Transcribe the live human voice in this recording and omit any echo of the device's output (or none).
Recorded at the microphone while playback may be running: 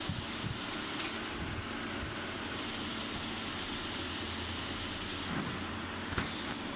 none